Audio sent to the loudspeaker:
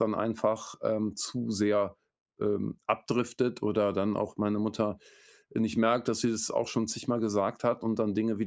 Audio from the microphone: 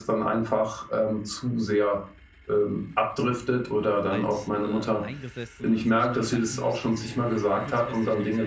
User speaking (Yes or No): Yes